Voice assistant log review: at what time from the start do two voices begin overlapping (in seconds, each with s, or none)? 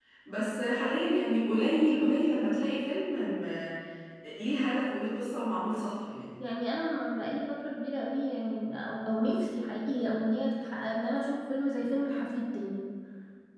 none